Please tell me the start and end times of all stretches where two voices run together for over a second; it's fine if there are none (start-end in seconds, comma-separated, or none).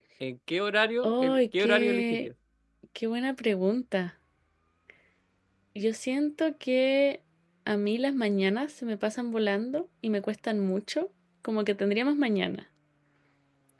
1.0-2.3